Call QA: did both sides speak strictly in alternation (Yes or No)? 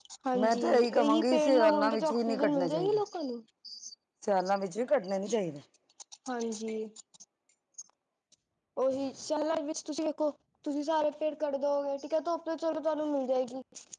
No